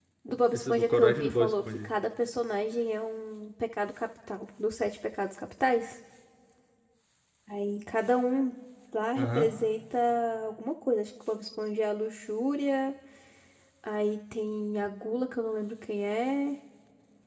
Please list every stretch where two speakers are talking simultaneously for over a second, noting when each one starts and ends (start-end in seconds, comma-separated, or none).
0.5-1.9